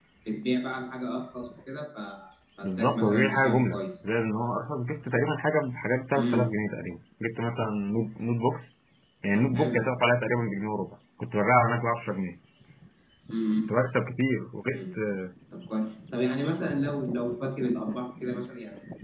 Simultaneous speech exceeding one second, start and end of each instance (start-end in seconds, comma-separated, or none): 2.6-4.1